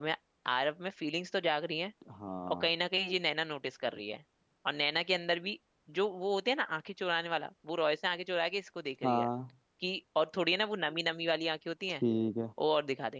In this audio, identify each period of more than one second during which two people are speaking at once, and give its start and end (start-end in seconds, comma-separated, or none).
none